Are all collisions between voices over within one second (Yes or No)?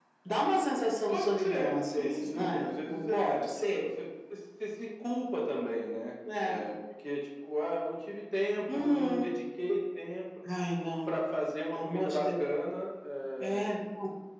No